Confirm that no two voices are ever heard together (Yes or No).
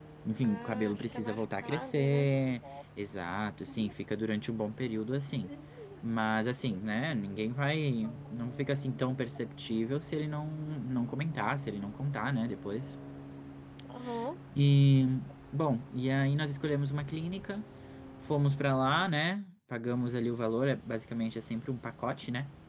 No